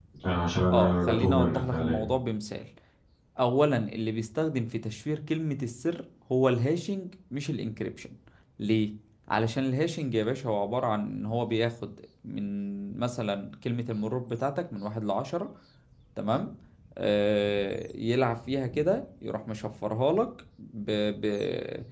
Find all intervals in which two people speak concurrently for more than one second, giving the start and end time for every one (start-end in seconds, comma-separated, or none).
0.7-2.1